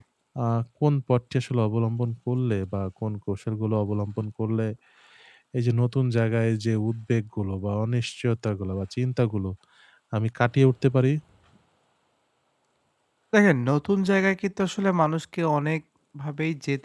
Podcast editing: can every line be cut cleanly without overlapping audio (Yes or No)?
Yes